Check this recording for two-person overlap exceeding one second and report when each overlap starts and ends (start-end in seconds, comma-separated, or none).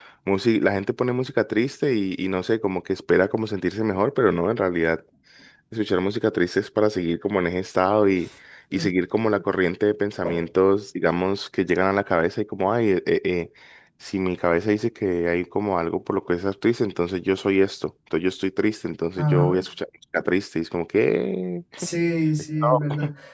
none